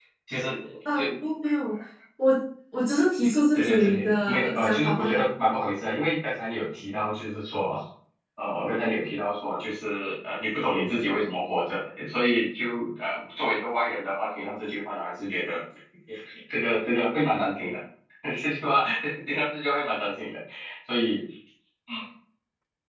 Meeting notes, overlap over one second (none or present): present